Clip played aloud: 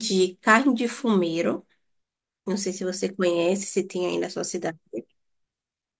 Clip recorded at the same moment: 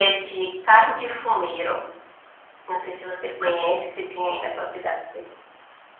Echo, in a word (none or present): present